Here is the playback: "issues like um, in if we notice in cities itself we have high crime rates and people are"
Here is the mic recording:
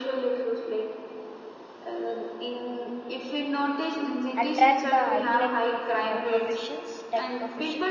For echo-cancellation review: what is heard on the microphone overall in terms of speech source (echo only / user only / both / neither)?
both